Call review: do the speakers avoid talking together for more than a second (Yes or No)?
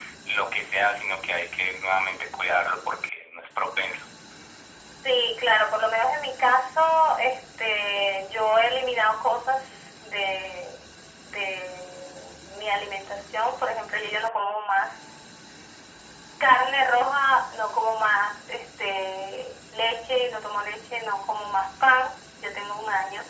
Yes